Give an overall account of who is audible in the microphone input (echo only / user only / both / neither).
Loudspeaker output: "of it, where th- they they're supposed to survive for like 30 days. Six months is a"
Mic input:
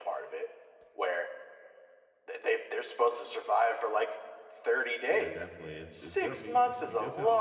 both